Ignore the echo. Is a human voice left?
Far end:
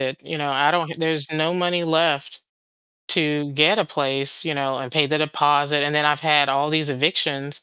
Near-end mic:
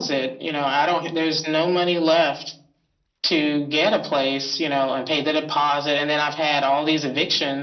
No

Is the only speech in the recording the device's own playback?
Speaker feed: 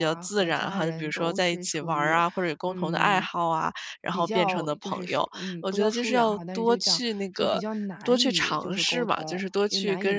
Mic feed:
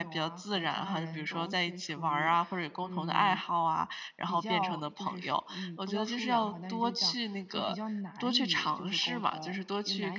Yes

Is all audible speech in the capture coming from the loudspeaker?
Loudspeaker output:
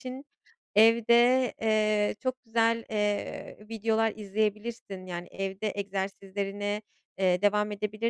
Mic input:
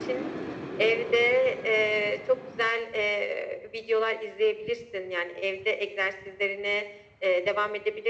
Yes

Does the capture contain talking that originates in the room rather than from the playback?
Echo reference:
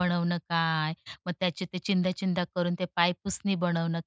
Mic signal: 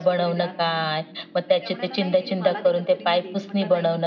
Yes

